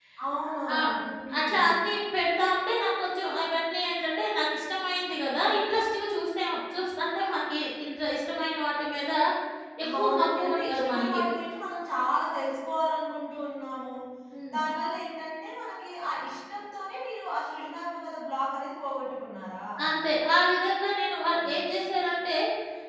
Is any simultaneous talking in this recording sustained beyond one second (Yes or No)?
Yes